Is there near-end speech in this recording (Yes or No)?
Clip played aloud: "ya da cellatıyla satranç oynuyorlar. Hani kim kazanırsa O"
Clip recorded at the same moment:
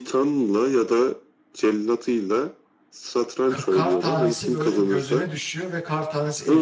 Yes